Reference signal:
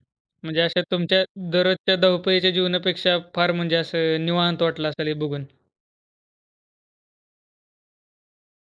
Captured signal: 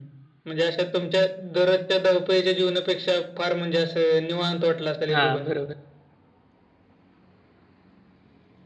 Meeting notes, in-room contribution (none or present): present